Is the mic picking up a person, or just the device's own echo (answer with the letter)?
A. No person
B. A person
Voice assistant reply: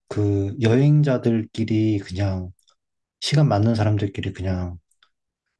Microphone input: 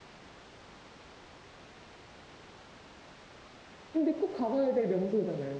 B